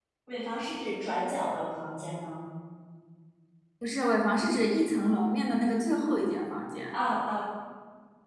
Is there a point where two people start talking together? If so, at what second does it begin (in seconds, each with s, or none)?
none